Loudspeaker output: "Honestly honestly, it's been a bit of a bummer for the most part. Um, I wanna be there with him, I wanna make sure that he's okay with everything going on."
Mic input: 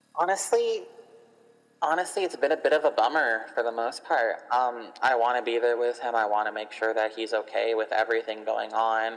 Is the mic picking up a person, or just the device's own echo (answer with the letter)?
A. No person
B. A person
A